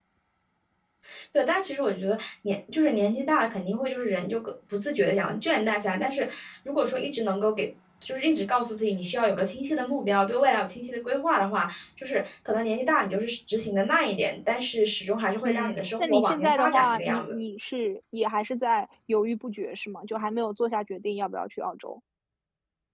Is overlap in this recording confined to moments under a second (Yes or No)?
No